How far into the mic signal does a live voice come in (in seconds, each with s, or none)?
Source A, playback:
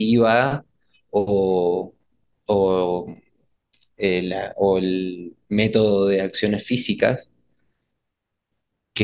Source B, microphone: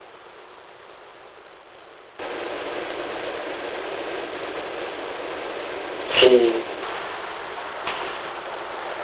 6.0 s